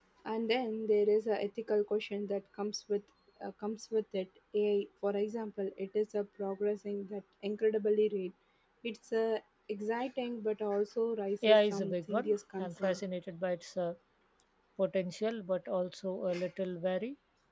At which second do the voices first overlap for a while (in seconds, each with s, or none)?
11.4 s